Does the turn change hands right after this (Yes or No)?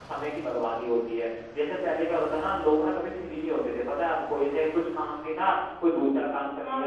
No